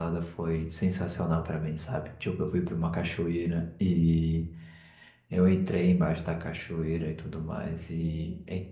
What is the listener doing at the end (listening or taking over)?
listening